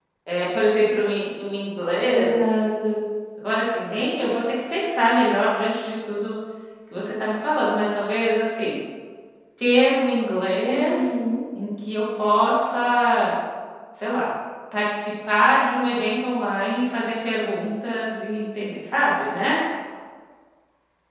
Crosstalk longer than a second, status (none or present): none